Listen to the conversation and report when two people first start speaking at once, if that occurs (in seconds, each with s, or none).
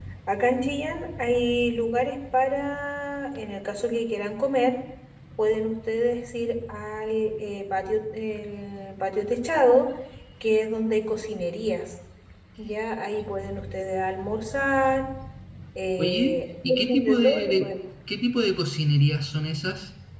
16.0 s